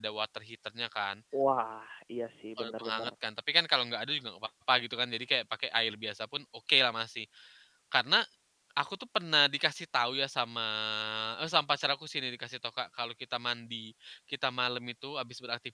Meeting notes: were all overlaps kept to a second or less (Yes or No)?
Yes